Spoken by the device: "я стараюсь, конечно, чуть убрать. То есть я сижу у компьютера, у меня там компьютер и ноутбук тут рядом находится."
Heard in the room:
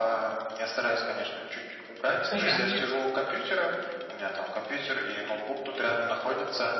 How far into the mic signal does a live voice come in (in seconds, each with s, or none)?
2.1 s